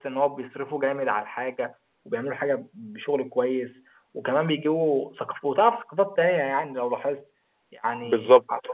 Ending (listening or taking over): listening